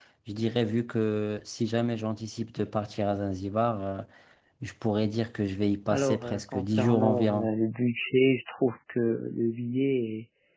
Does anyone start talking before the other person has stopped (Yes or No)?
Yes